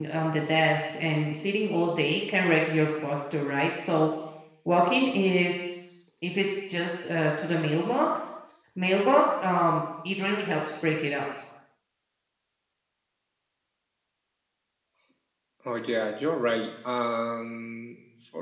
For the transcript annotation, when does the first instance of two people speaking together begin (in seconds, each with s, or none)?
none